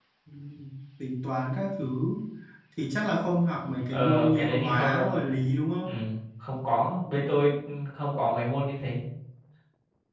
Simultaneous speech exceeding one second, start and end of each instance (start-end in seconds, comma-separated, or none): 3.9-5.3